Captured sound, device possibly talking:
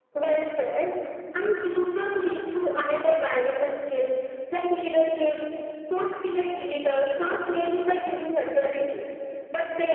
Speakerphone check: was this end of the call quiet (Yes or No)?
Yes